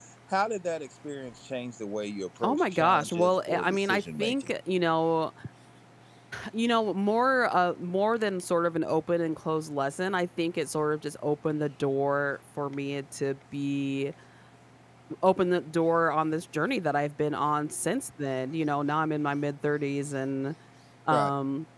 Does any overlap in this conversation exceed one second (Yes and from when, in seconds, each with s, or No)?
Yes, from 2.4 s